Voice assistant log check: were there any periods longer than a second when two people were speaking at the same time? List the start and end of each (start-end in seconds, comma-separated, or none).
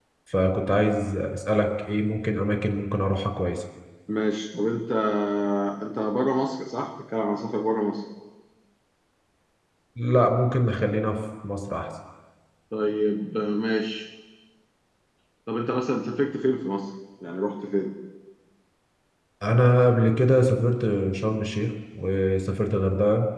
none